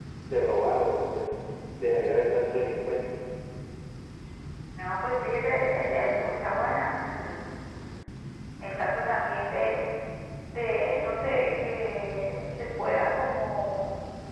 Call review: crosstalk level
none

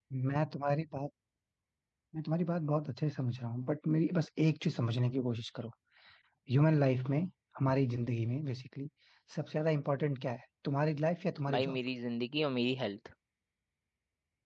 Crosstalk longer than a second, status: none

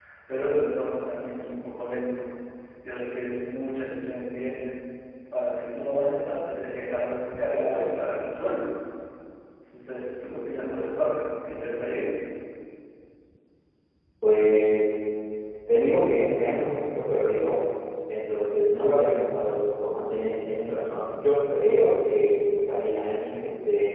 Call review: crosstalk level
none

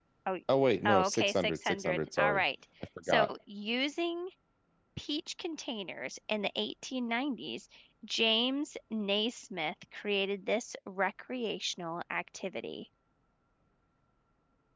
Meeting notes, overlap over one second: present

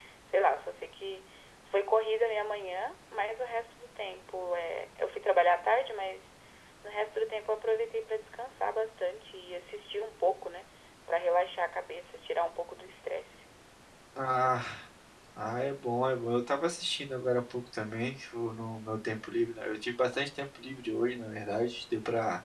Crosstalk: none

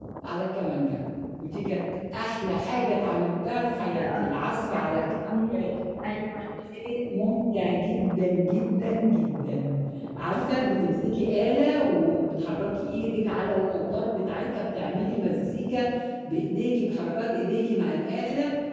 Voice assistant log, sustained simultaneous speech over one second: present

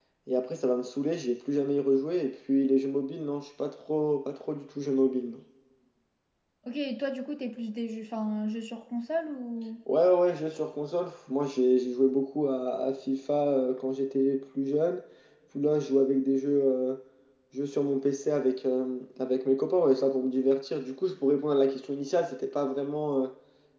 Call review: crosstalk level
none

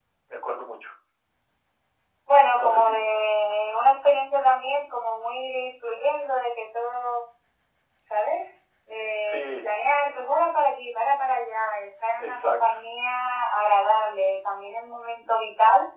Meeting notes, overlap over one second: none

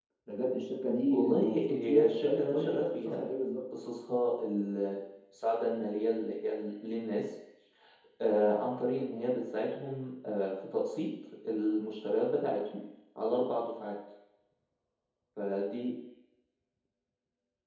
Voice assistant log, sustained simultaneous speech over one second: present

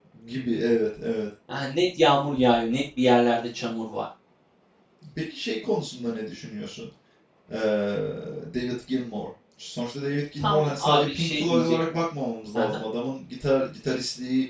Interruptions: present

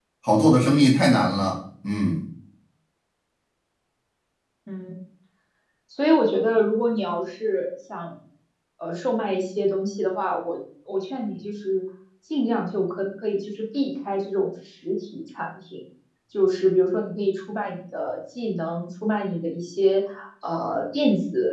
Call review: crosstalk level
none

